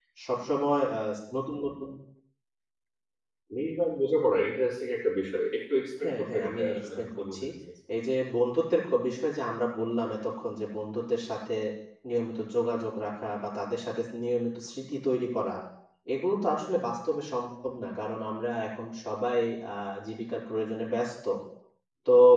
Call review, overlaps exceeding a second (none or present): present